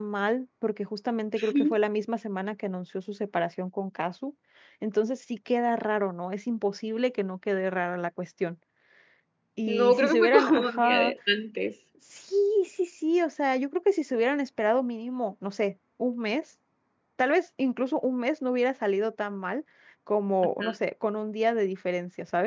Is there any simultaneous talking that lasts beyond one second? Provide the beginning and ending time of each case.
9.7-11.1

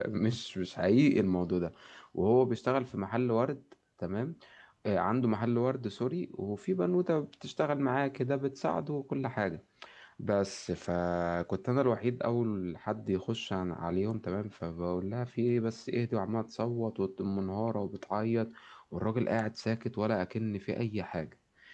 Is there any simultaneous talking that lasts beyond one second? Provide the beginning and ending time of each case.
none

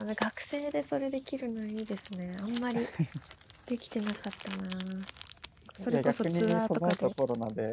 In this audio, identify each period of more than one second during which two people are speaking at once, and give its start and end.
5.9-7.1

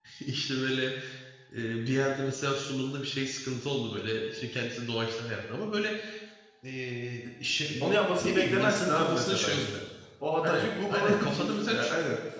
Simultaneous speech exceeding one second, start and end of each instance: 8.2-9.7, 10.4-11.8

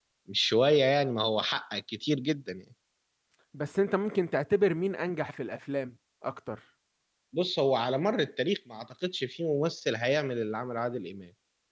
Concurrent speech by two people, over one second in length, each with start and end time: none

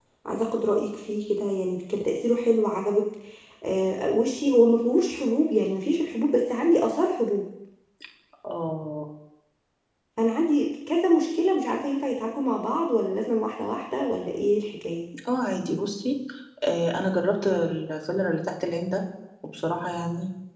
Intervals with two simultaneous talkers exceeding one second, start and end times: none

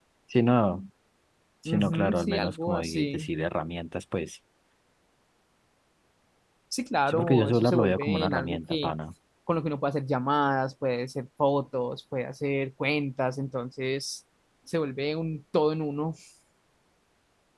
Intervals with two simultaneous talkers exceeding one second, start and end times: 1.6-3.3, 7.1-8.9

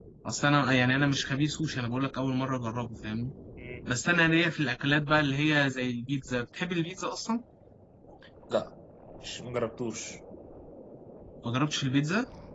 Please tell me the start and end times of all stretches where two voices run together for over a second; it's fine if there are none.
none

